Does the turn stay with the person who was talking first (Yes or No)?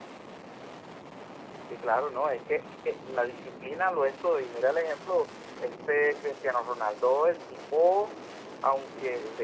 Yes